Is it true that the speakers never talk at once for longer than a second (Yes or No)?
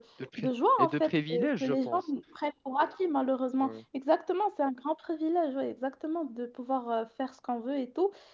No